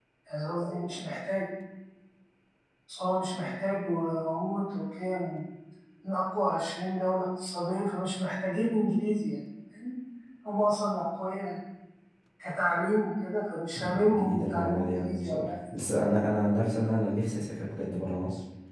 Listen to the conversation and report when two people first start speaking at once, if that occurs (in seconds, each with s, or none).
13.8 s